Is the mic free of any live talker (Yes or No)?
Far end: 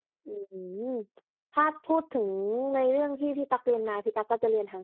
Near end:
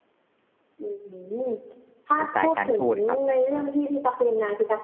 No